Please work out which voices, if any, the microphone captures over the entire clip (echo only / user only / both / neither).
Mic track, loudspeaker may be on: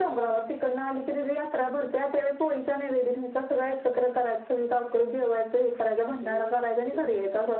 both